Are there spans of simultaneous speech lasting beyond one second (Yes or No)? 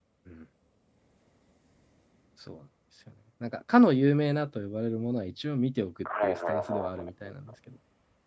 Yes